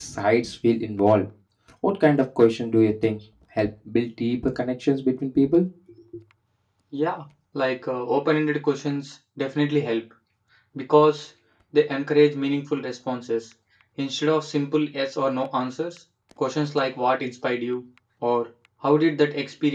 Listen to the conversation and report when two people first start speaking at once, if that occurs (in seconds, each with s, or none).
none